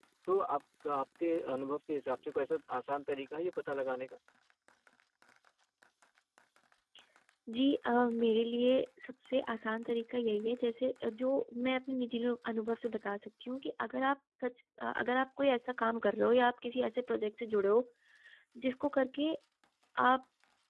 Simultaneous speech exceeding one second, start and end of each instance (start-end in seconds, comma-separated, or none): none